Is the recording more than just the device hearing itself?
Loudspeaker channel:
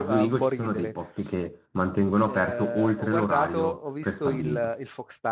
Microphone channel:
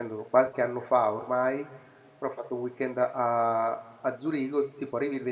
Yes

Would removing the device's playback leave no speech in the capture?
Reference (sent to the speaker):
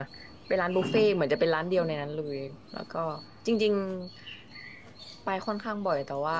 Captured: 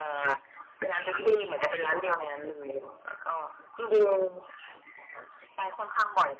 Yes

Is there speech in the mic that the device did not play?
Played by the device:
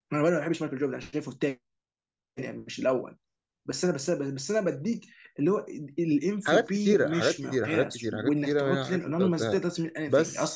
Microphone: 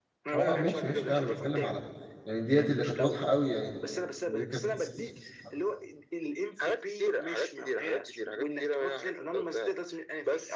Yes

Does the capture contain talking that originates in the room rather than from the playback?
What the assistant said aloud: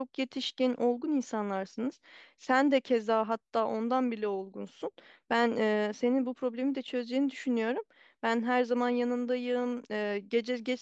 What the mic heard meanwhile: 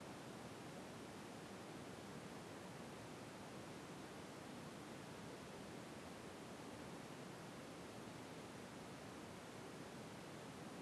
No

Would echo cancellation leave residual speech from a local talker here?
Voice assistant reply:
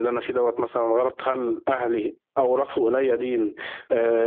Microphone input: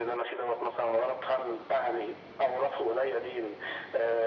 No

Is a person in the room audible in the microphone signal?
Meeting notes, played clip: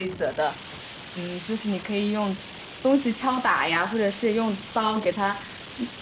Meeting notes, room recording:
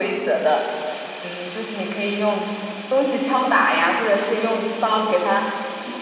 No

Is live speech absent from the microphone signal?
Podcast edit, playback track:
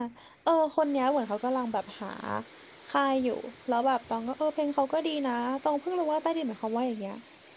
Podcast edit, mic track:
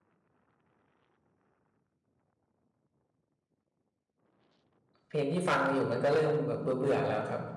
No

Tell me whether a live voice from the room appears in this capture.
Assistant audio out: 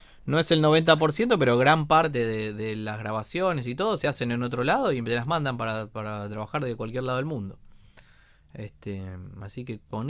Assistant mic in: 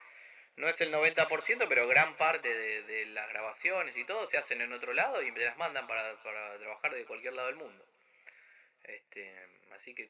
No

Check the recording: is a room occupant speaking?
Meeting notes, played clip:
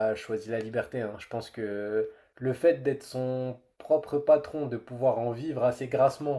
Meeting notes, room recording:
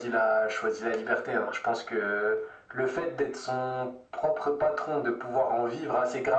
No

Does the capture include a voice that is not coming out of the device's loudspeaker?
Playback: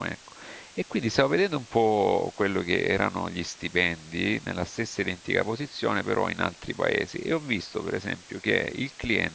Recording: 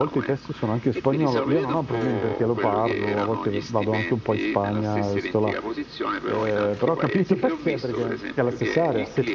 Yes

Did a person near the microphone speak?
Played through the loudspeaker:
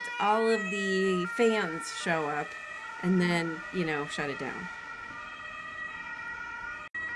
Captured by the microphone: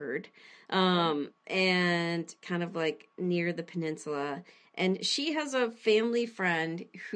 Yes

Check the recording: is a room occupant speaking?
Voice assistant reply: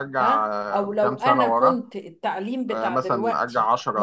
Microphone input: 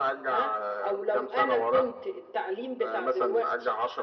No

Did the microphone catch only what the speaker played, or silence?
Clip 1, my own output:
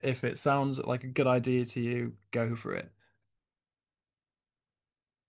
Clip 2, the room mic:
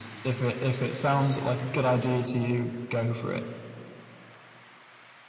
Yes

